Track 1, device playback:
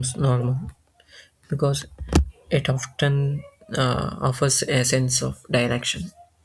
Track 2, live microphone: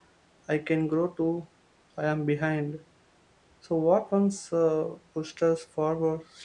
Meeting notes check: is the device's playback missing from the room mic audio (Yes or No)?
Yes